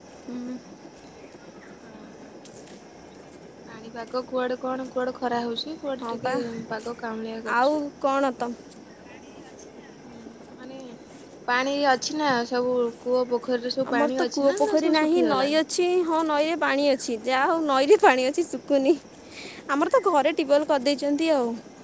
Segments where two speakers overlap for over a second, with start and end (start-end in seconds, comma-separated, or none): 13.9-15.6